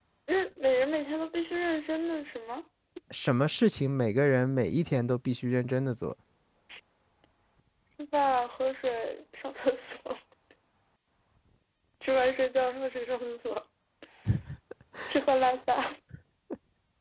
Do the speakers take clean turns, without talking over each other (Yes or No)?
Yes